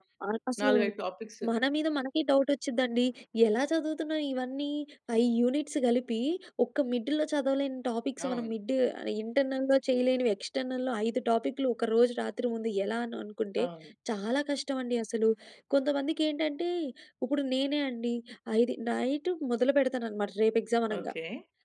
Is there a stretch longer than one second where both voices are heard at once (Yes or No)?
No